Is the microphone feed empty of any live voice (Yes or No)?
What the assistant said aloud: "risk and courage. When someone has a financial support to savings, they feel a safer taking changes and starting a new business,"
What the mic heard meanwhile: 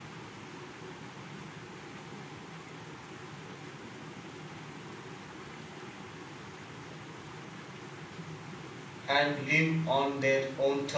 No